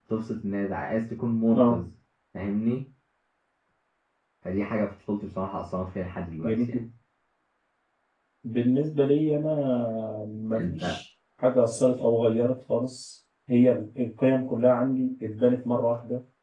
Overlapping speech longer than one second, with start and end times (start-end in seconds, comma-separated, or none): none